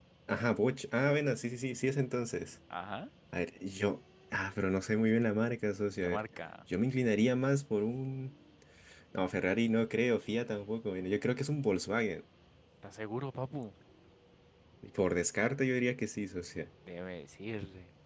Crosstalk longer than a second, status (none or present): none